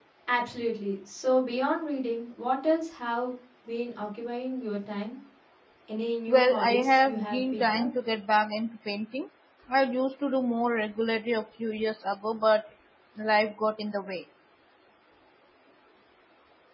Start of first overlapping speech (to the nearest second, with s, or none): 6 s